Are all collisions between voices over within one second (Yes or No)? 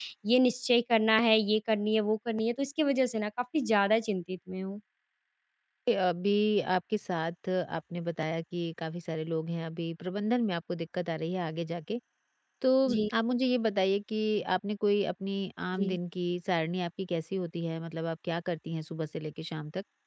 Yes